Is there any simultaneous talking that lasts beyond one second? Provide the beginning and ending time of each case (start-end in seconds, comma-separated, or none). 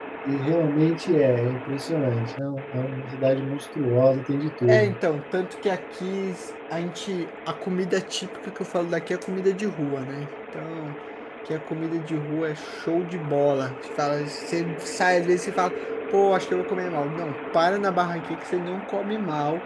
none